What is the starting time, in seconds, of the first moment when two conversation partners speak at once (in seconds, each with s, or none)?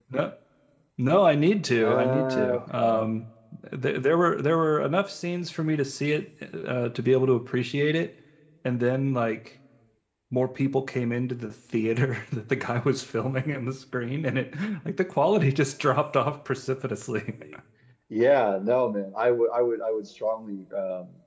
1.8 s